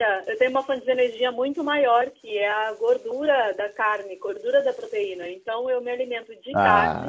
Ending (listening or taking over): listening